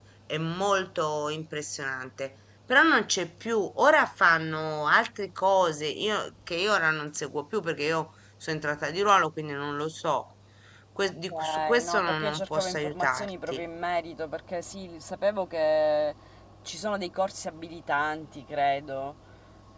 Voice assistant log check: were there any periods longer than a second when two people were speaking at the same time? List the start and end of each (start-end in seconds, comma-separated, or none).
11.3-13.6